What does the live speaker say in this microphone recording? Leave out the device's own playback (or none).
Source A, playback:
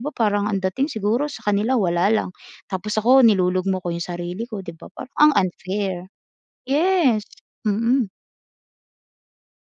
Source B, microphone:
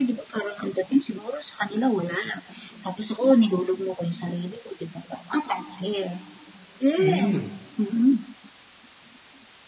Hmm.